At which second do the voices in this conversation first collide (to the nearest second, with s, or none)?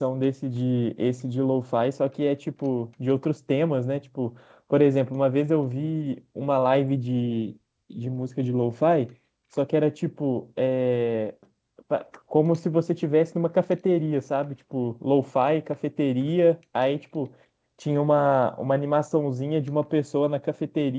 none